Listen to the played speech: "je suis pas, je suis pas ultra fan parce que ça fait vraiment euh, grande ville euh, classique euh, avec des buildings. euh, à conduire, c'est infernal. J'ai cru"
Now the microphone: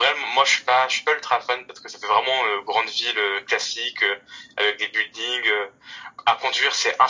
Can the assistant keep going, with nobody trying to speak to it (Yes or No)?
Yes